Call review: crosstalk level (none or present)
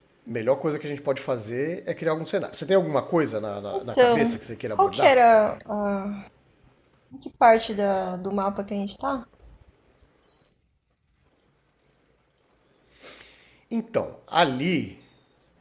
present